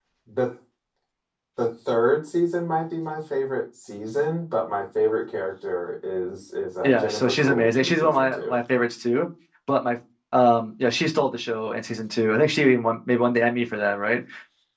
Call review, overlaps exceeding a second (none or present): present